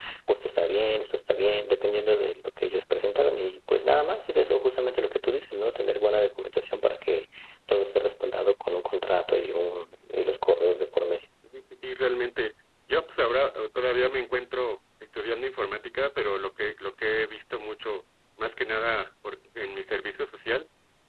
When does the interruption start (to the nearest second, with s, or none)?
none